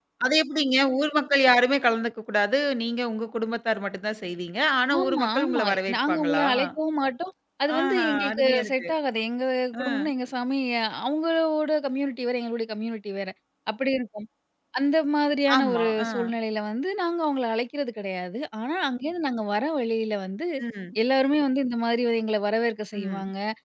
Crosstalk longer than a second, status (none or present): present